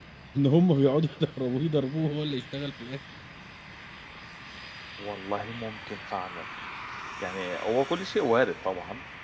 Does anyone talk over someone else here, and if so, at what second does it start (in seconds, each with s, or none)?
none